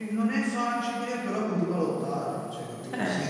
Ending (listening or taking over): listening